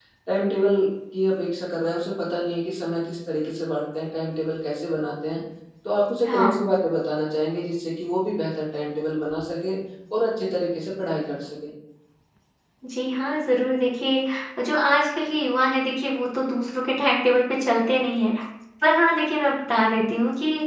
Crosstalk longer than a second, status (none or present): none